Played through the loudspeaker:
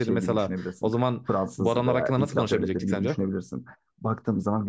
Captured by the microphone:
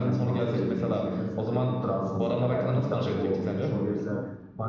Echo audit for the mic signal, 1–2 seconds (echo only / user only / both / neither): both